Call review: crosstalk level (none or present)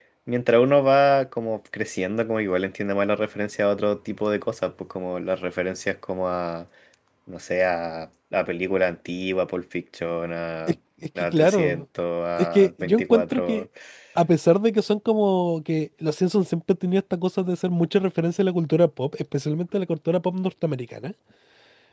present